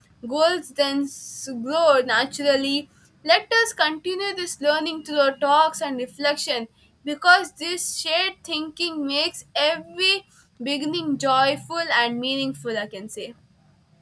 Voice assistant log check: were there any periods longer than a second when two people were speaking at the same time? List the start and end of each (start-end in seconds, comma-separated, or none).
none